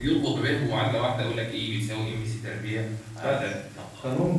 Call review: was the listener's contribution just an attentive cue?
No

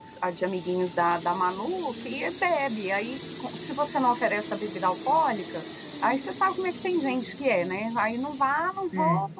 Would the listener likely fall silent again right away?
Yes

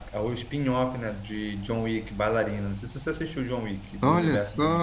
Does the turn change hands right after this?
Yes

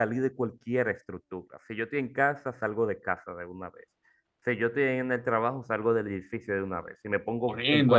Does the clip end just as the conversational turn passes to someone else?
Yes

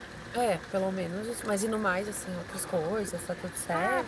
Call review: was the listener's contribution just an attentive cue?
No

